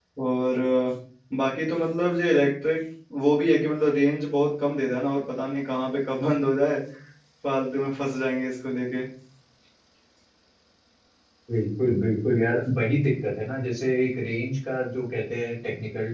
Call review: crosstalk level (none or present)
none